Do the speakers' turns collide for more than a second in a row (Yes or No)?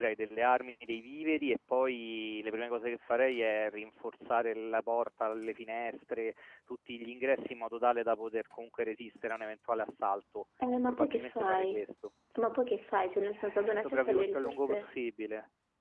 Yes